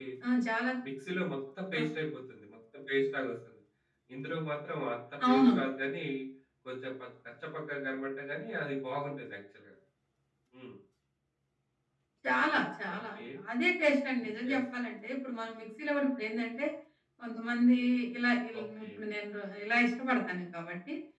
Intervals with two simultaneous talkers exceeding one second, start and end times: none

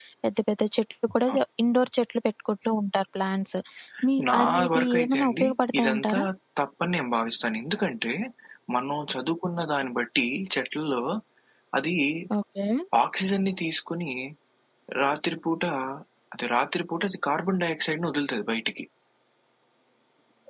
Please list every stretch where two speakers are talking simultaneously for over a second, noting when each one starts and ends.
4.3-6.2

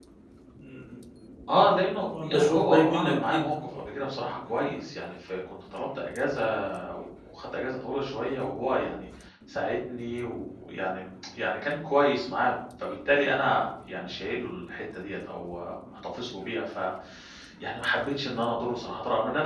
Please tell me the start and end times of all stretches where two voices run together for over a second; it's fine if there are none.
2.0-3.8

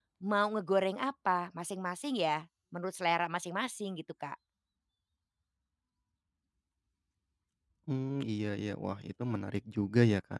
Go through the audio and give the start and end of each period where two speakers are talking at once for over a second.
none

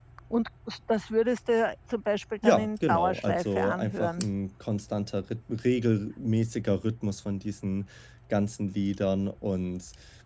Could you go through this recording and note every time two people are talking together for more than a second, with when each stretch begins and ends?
2.4-4.2

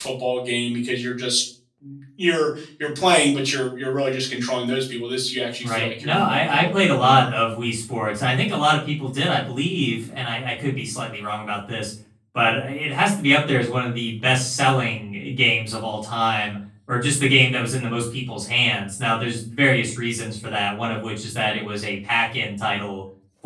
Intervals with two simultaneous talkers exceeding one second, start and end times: 5.6-7.3

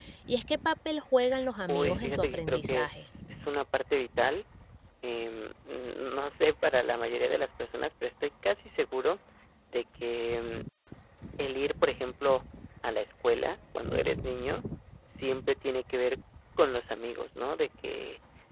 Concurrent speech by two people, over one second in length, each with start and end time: 1.7-3.1

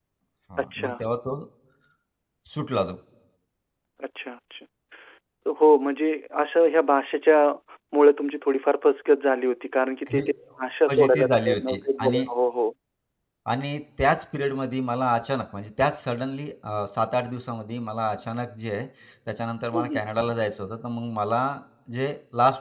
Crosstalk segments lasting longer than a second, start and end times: 10.9-12.2

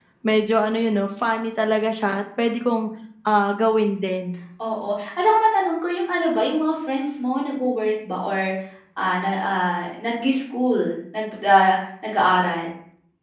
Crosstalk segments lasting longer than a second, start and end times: none

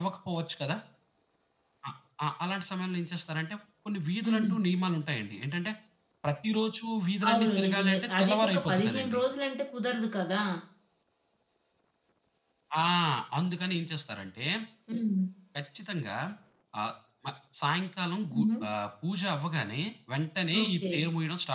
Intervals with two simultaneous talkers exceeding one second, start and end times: 7.3-9.2

